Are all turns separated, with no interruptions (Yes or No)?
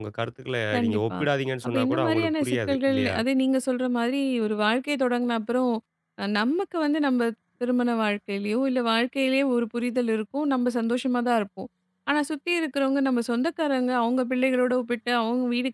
No